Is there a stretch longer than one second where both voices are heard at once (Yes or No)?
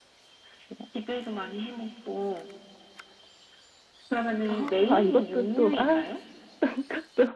Yes